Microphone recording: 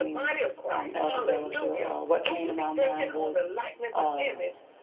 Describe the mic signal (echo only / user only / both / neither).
both